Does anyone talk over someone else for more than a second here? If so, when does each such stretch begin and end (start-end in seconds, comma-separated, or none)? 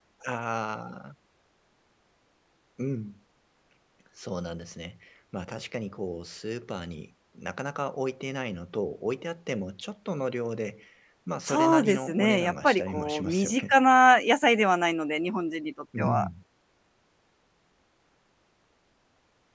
11.4-13.8